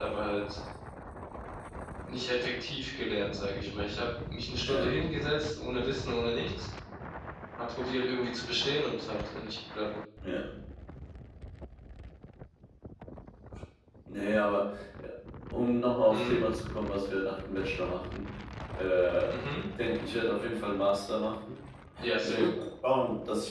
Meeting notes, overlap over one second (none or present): none